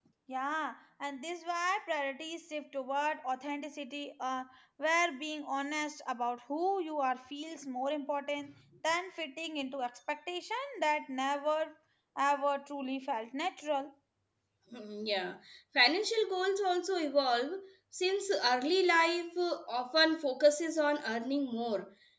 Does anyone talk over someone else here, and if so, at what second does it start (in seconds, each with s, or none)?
none